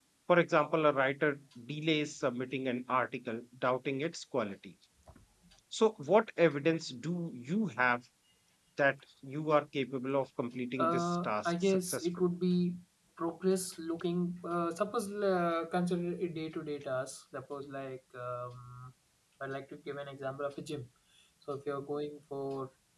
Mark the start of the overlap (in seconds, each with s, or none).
10.8 s